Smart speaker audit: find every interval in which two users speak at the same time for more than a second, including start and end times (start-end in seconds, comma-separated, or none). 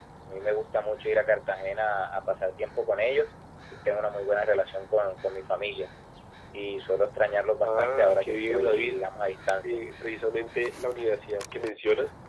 7.6-9.0